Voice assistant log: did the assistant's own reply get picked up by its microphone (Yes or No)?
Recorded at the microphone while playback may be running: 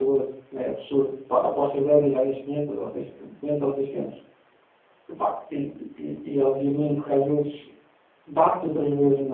No